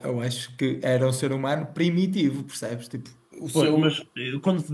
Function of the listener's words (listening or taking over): taking over